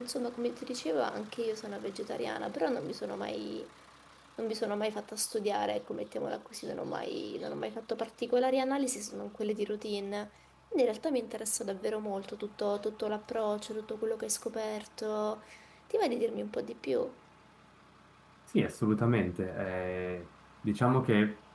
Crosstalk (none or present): none